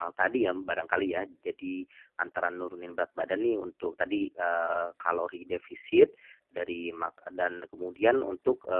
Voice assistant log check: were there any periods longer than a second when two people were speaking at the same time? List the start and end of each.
none

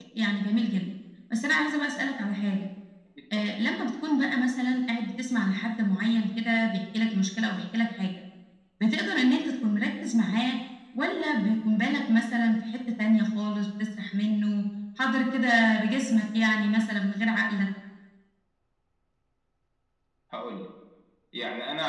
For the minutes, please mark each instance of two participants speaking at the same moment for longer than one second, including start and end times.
none

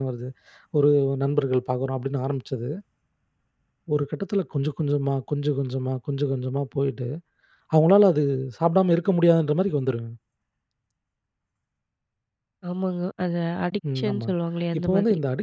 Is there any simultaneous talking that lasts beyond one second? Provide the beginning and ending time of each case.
none

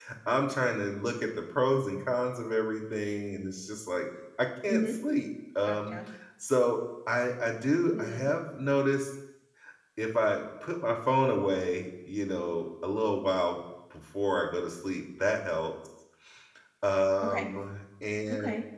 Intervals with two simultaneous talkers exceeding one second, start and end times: none

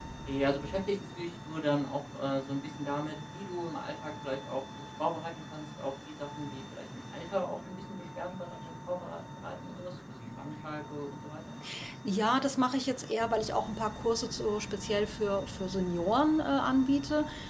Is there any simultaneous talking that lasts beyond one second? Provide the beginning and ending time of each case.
none

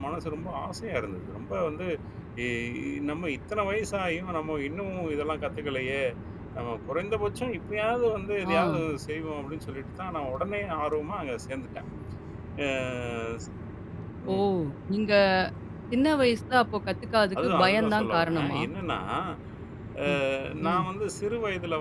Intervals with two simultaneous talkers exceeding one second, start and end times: 17.4-18.6

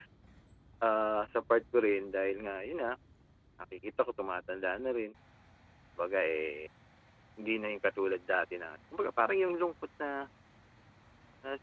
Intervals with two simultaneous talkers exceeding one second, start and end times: none

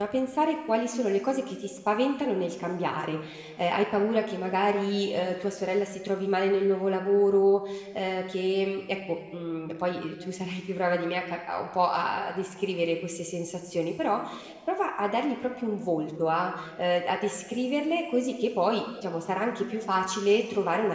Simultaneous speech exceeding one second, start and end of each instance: none

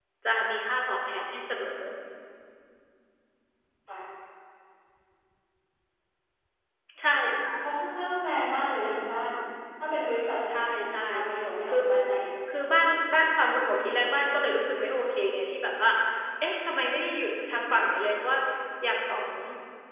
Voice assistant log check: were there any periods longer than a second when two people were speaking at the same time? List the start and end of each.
10.6-11.8

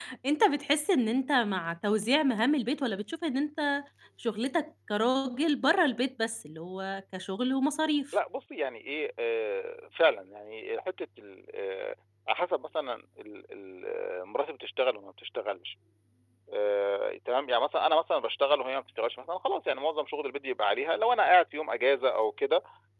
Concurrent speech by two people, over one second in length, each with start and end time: none

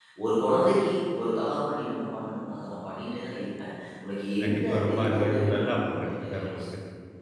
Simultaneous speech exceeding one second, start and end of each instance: 4.4-6.6

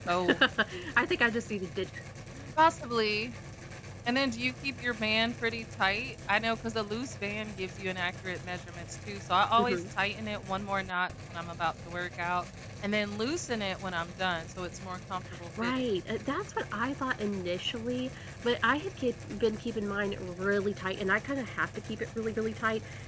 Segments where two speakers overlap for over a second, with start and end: none

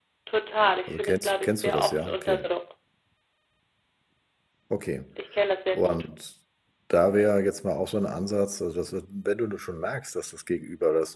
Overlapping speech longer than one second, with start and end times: 0.9-2.4

